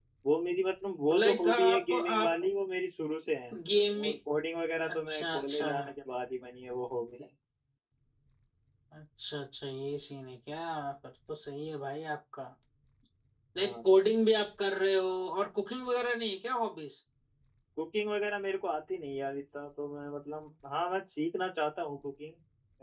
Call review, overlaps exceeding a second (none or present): present